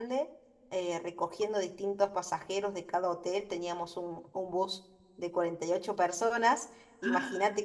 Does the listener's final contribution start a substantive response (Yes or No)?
No